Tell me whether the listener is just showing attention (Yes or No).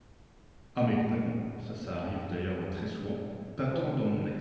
Yes